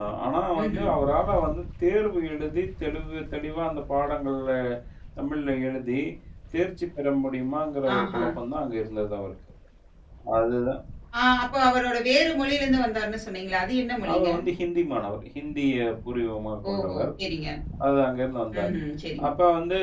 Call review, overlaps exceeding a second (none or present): none